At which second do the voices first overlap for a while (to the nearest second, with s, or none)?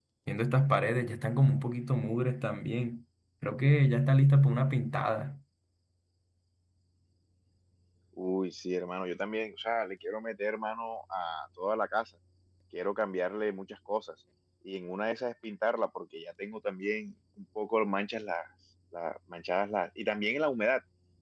none